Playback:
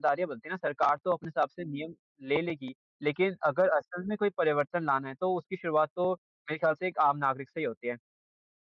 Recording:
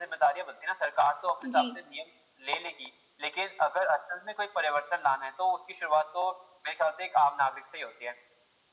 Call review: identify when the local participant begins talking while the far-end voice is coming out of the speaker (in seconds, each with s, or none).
1.4 s